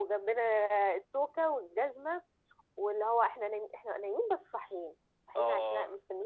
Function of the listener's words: listening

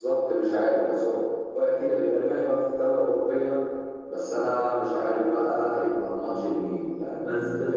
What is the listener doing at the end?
listening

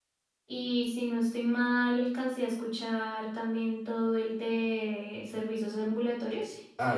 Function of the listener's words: taking over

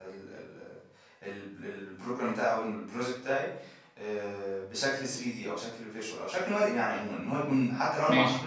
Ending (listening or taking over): listening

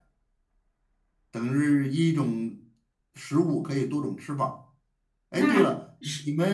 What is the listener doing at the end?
listening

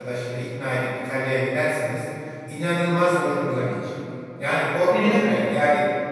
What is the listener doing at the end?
listening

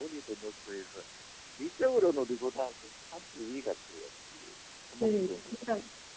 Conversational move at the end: taking over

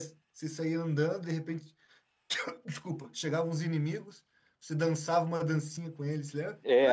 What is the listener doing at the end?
taking over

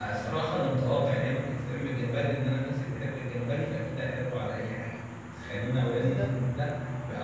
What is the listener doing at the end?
listening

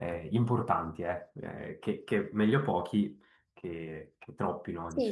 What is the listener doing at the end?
taking over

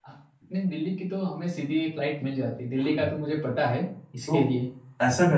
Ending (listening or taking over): taking over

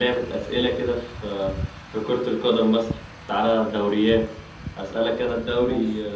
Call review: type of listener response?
listening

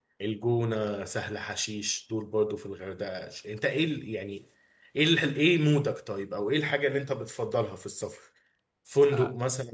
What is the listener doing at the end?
listening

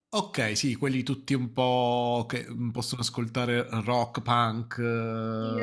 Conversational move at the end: taking over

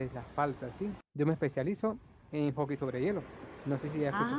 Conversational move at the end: taking over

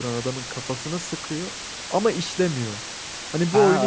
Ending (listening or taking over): taking over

